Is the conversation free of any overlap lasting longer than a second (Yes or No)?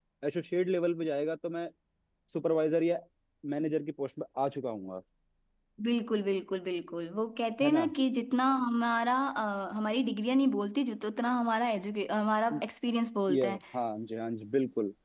Yes